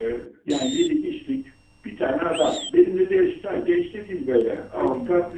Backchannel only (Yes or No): Yes